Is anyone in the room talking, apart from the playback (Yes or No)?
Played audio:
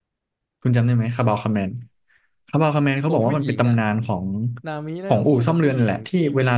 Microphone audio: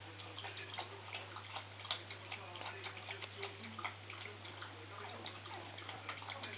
No